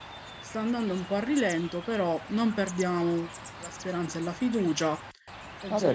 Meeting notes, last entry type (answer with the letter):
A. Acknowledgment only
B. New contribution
B